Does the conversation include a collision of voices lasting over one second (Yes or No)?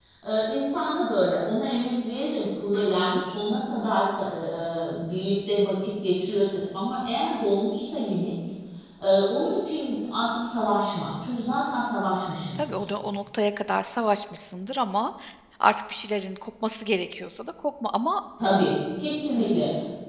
No